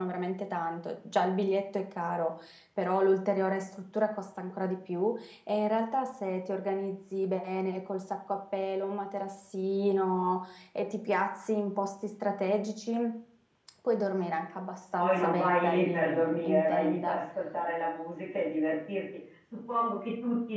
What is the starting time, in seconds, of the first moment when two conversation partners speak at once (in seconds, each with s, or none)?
15.0 s